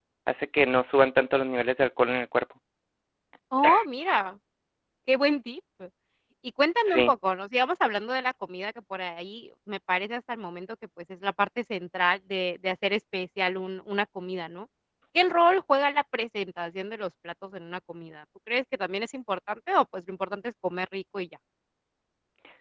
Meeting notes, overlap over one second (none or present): none